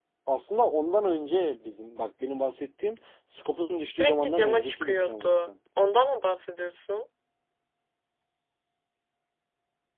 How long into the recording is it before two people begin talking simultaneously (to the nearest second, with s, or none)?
4 s